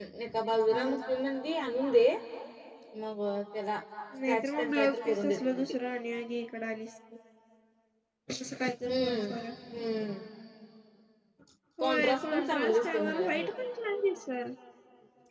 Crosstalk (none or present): present